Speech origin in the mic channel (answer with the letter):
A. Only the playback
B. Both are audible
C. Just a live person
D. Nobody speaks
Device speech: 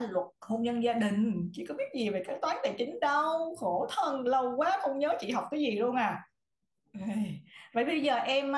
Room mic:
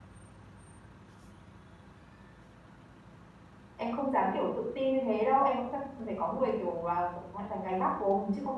C